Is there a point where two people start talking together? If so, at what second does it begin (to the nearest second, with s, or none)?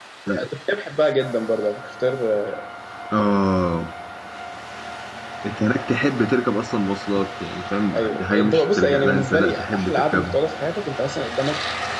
8 s